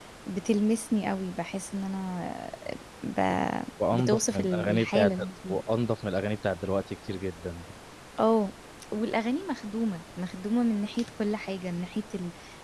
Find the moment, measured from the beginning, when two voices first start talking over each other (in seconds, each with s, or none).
3.9 s